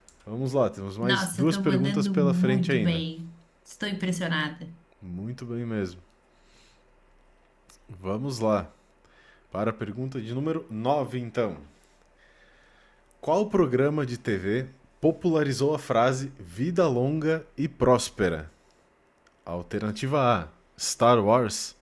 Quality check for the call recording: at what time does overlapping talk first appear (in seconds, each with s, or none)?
1.0 s